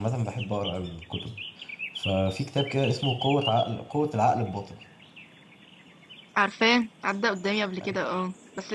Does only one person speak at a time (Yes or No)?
Yes